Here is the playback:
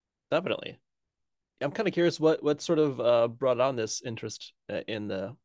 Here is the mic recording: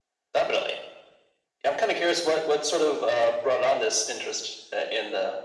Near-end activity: none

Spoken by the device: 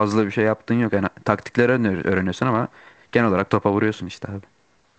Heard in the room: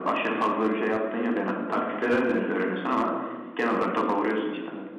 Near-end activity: none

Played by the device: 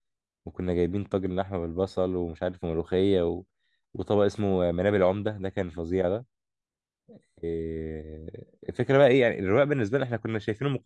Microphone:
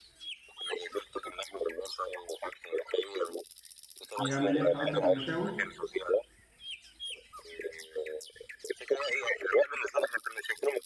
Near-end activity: present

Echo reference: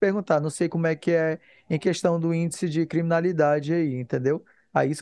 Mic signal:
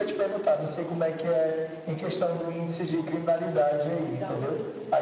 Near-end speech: present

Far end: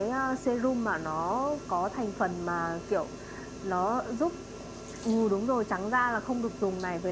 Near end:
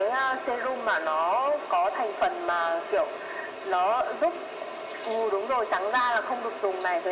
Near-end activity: none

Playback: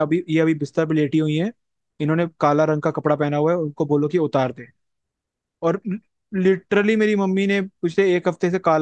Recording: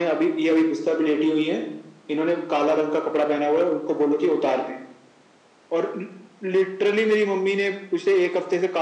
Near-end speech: none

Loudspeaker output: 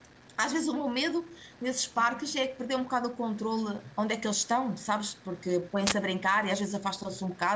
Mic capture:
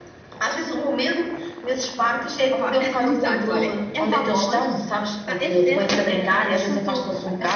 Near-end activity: present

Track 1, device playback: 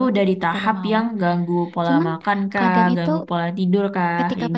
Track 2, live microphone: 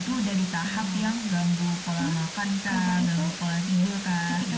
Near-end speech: none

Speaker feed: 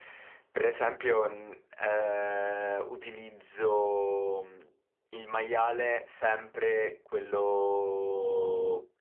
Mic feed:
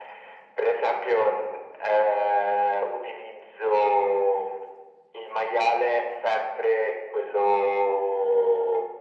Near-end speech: none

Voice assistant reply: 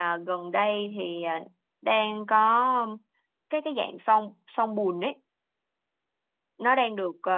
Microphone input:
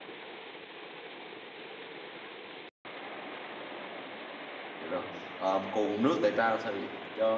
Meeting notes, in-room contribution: present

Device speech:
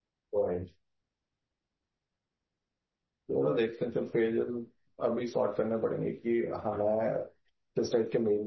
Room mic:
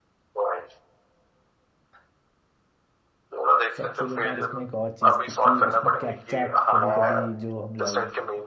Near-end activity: present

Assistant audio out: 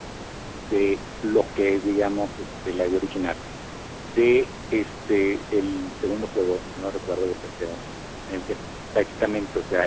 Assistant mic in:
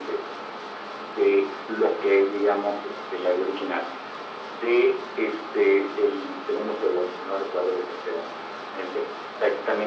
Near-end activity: none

